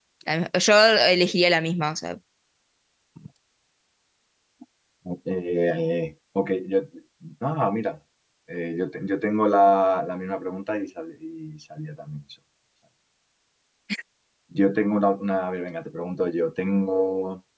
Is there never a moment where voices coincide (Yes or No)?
Yes